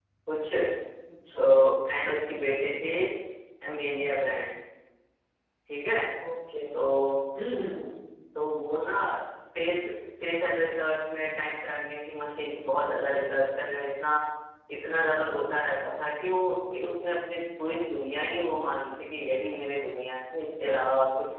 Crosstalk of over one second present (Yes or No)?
No